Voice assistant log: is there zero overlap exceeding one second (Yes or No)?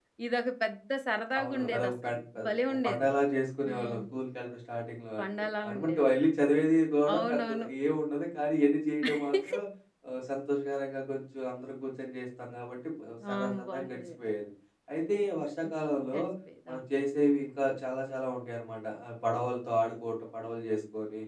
No